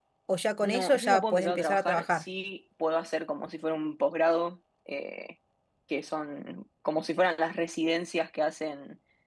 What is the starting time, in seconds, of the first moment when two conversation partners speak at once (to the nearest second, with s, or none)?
1 s